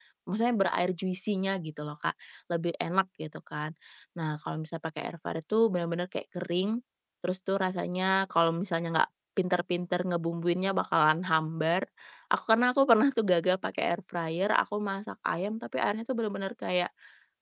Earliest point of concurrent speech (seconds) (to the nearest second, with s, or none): none